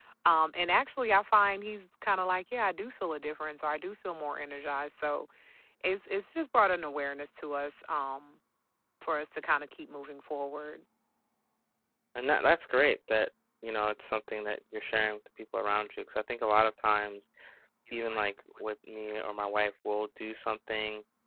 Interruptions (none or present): none